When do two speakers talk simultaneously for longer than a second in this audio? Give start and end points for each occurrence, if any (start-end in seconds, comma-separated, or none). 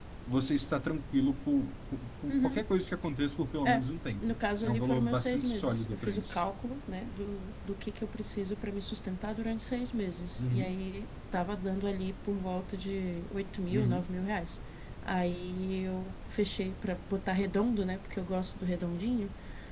4.2-6.4